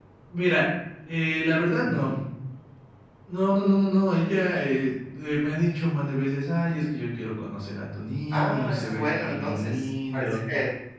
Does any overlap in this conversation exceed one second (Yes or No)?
Yes